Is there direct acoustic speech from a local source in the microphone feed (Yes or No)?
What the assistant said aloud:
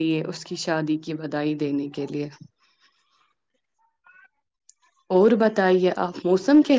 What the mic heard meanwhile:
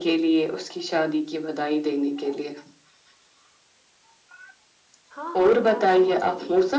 Yes